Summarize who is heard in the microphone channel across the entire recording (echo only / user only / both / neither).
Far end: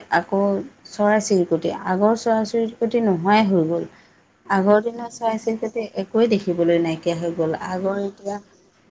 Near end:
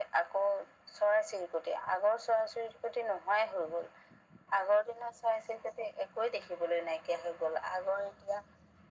echo only